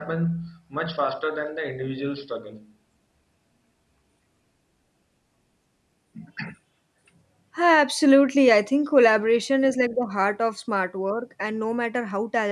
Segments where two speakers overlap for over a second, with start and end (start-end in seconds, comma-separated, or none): none